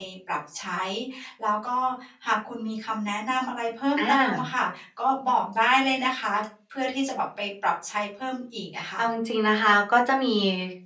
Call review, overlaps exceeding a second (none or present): none